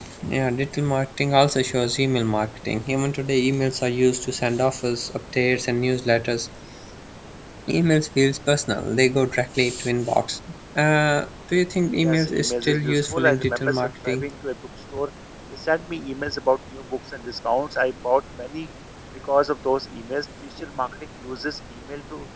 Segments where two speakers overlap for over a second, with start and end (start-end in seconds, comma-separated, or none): 12.0-14.2